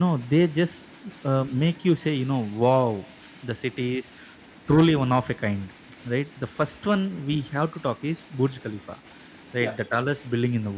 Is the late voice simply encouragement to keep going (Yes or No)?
Yes